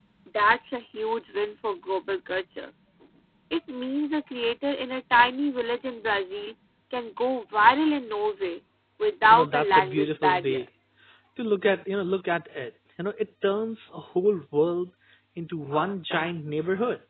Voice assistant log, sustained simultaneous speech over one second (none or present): present